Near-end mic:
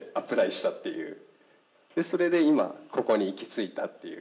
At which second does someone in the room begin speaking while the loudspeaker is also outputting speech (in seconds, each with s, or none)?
none